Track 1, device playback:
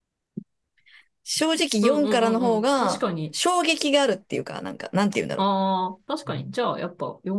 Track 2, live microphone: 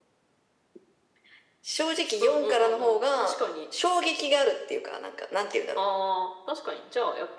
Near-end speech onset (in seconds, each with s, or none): none